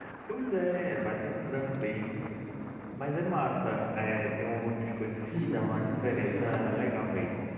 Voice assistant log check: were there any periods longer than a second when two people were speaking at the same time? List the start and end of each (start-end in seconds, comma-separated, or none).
5.2-7.0